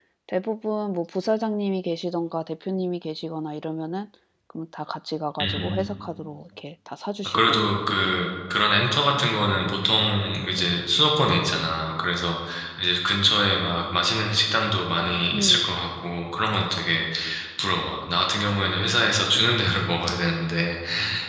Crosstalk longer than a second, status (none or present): none